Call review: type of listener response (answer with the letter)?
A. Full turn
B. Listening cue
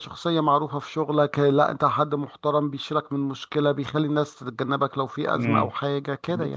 A